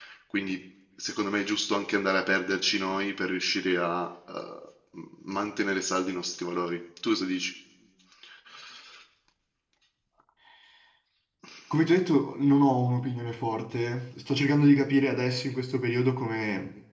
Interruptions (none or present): none